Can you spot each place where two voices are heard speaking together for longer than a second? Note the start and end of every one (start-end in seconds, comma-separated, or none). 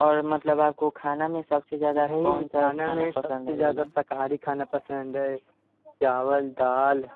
2.1-3.9